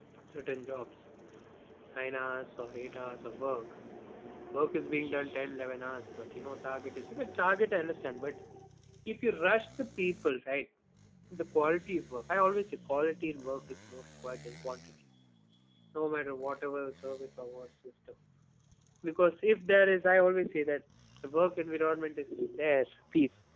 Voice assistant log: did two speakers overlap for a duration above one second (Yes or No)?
No